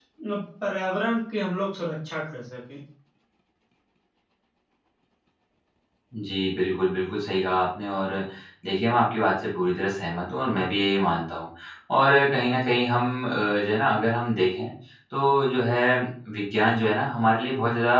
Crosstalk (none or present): none